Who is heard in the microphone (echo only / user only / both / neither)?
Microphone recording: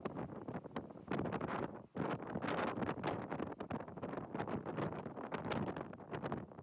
neither